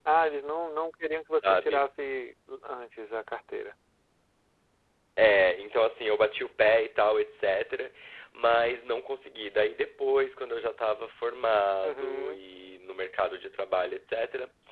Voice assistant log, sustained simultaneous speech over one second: none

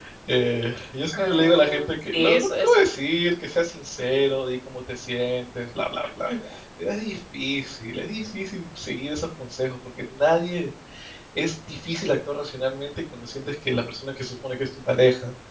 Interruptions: present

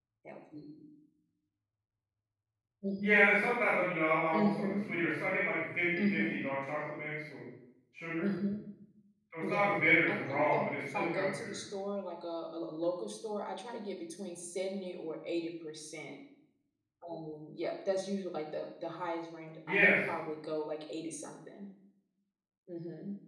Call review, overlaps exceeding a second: present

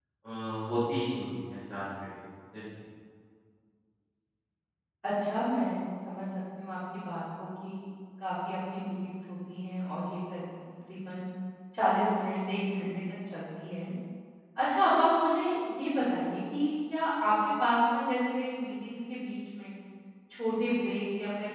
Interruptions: none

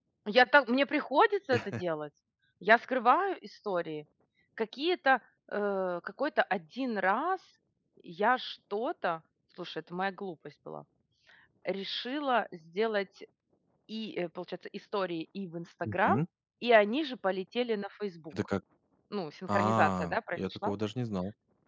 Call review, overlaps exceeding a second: present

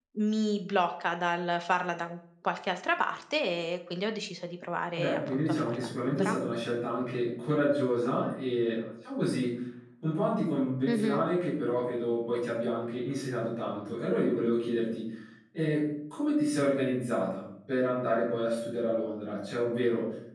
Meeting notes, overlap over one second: present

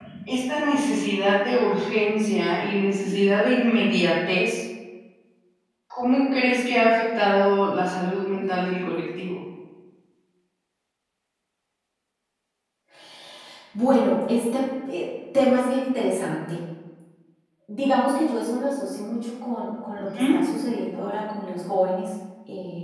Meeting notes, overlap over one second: none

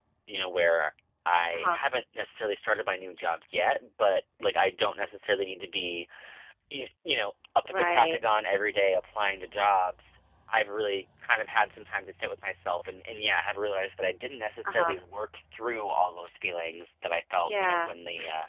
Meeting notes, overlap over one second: none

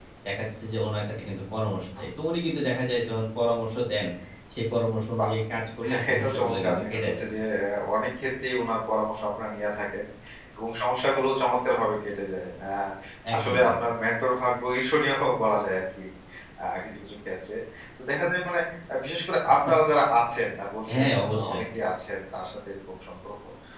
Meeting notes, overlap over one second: present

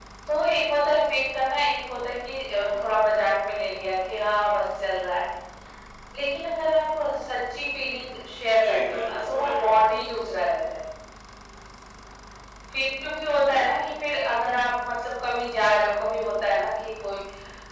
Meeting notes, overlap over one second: present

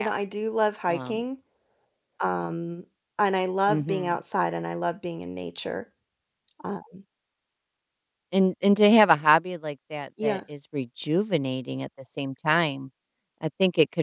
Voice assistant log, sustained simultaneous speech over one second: none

